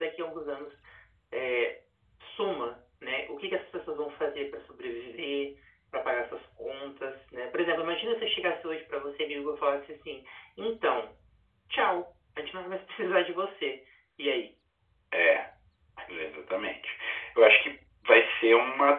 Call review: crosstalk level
none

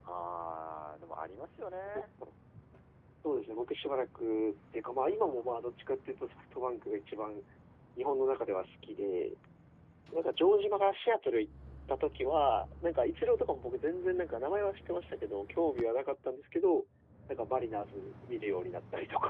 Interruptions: none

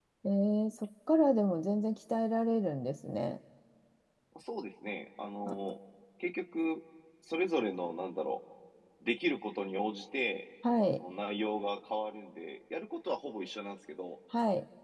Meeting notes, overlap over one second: none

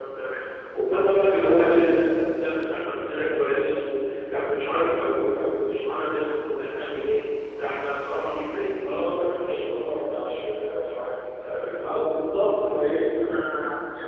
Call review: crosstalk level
present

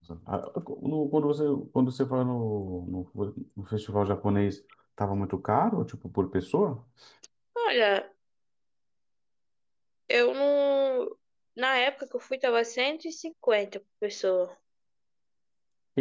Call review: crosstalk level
none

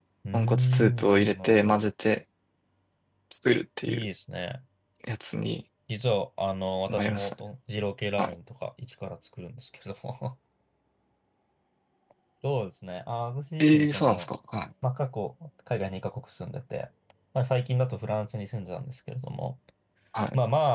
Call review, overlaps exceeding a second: present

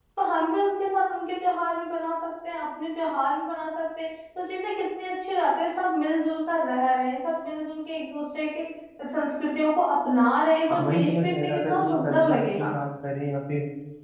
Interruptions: present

